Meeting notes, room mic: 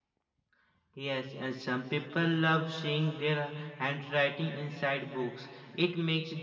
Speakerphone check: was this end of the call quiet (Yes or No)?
Yes